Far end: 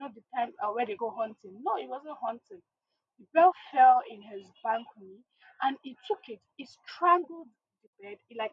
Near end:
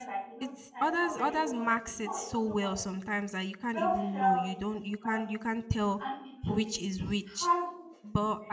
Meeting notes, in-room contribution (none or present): present